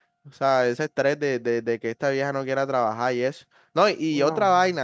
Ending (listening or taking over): listening